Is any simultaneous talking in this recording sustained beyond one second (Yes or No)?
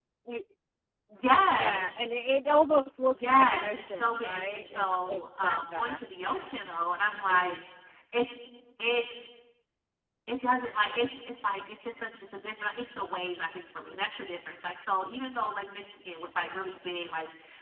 Yes